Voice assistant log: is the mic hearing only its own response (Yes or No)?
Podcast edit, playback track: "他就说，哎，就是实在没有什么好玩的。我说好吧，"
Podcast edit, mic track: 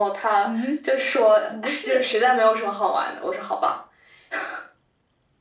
No